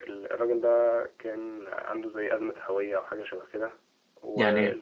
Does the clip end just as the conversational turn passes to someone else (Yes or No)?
No